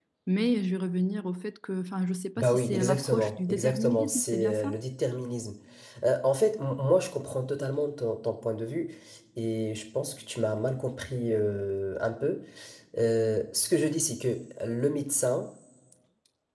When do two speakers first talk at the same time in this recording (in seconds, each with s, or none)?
2.4 s